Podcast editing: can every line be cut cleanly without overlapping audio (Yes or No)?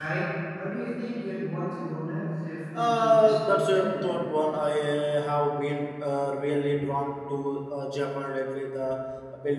No